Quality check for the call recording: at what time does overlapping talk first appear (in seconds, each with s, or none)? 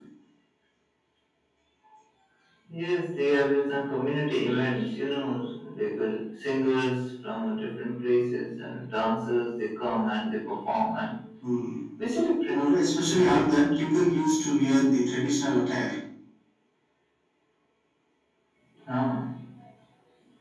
12.5 s